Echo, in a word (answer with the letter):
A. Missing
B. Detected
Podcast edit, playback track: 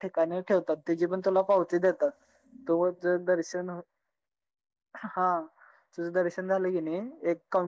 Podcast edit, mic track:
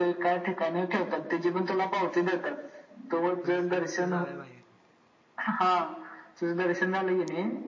B